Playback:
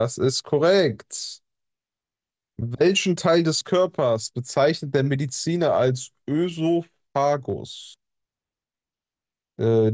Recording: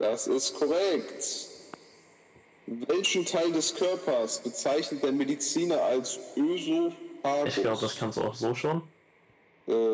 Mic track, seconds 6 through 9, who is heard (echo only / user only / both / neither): both